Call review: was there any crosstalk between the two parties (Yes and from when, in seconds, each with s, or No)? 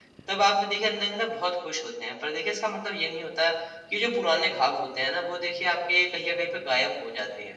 No